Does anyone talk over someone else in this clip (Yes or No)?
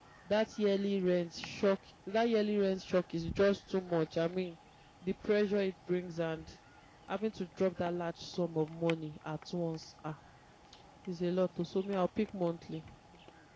No